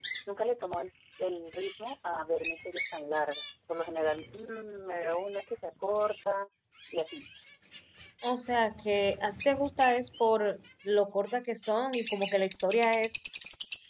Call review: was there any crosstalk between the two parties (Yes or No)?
No